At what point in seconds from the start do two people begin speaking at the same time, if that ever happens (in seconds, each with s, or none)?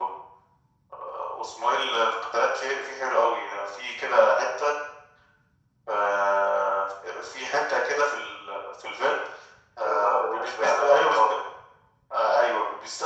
9.8 s